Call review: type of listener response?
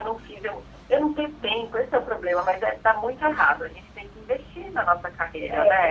taking over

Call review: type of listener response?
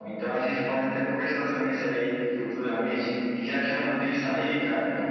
listening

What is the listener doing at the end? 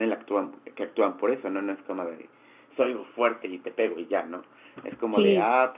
listening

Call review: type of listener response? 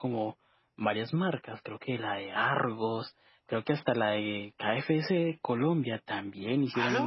listening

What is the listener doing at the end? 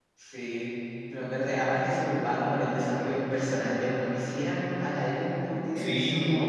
taking over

